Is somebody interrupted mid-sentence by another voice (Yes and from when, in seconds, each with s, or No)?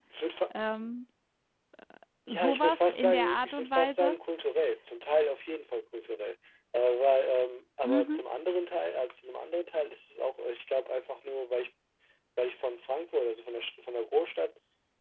Yes, from 2.3 s